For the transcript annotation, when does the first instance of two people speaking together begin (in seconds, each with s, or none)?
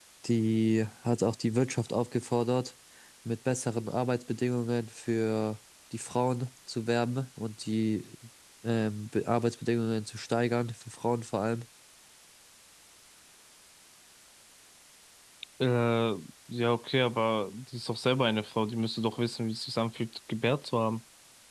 none